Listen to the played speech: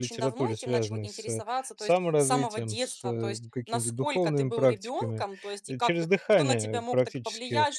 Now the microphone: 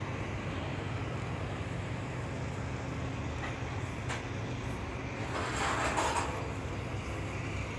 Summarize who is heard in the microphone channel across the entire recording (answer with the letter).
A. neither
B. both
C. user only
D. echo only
A